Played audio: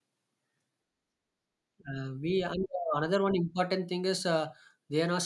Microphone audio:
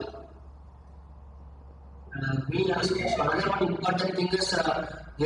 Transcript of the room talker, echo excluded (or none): Gestation, right?